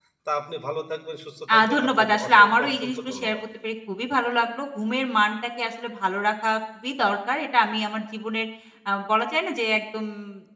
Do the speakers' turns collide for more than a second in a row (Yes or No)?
Yes